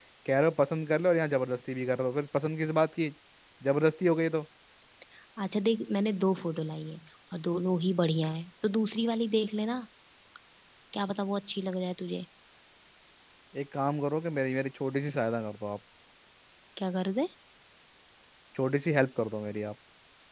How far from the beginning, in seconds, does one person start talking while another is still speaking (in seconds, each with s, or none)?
none